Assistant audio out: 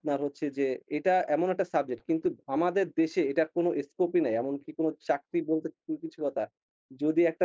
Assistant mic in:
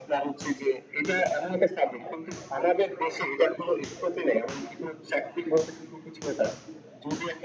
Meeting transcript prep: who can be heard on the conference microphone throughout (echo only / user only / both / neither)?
echo only